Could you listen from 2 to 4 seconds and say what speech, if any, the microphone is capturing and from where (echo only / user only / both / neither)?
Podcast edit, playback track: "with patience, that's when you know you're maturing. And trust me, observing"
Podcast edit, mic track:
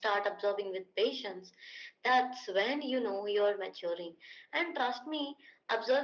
echo only